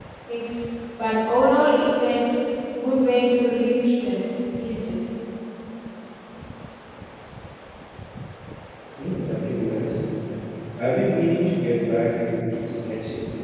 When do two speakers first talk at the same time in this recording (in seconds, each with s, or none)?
none